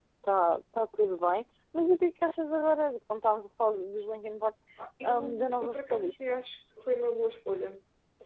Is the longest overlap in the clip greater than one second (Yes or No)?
Yes